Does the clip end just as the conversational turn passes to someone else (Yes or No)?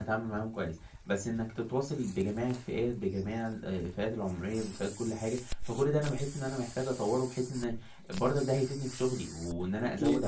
No